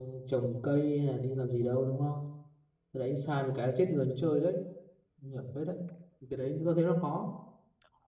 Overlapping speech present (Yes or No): No